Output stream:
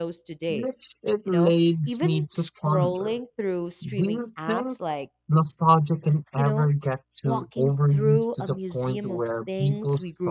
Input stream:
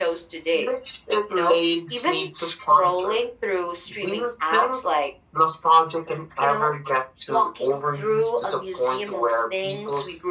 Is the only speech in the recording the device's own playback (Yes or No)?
Yes